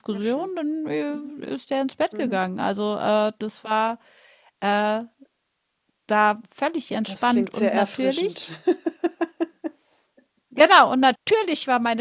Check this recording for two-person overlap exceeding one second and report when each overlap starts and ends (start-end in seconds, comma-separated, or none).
7.0-8.5